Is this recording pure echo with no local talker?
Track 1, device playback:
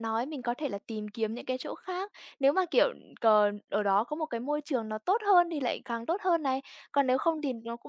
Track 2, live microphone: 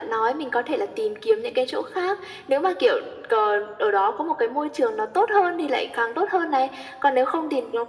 Yes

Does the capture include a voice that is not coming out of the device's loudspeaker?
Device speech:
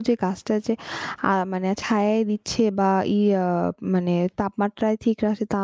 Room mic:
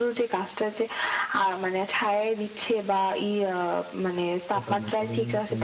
Yes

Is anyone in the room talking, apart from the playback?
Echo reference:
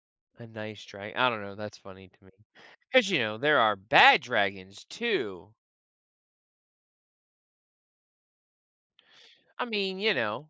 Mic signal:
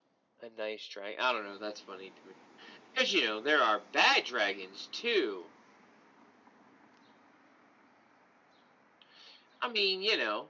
No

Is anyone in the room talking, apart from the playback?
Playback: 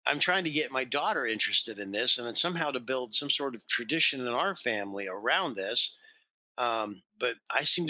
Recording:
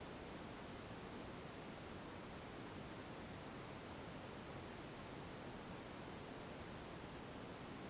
No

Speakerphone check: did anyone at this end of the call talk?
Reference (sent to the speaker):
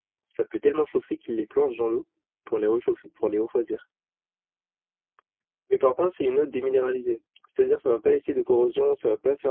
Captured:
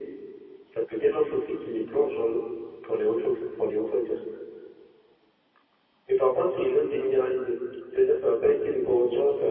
No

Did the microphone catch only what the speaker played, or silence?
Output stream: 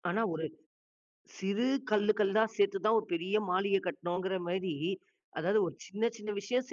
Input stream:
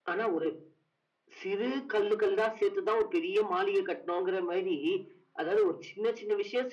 Yes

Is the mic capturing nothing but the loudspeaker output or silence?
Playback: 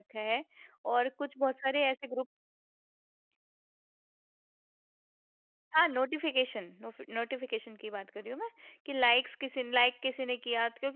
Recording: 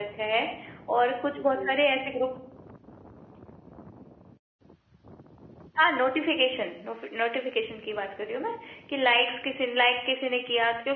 No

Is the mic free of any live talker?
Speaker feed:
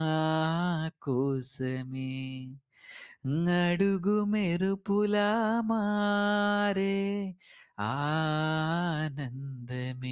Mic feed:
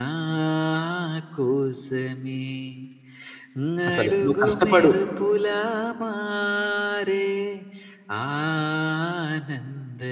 No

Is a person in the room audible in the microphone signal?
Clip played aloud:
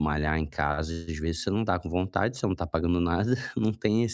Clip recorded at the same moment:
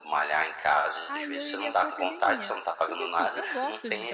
Yes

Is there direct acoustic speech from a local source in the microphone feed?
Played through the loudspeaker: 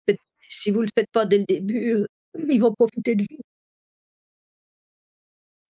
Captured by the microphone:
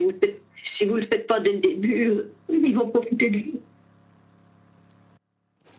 No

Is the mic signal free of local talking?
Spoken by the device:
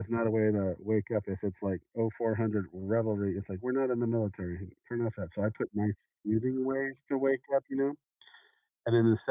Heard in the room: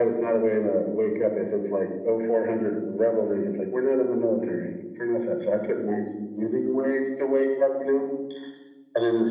Yes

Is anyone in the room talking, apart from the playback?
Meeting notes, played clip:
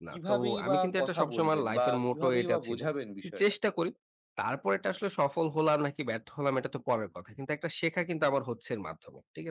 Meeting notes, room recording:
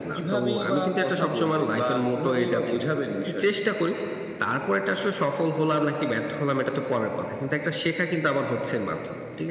No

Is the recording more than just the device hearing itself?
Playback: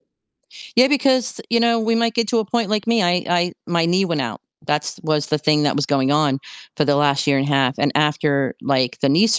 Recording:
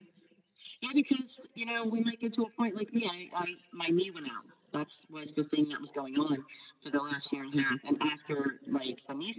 No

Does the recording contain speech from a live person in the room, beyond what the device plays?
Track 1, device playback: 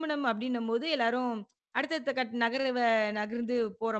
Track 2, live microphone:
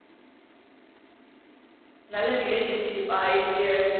Yes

